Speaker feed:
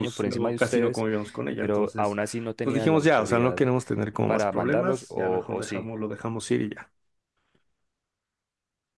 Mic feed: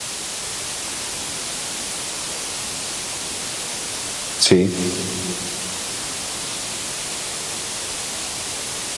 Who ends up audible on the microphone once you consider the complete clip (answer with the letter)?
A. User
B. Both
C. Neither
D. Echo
A